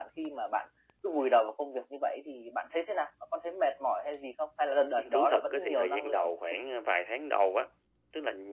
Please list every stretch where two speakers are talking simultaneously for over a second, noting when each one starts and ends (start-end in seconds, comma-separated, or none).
5.0-6.3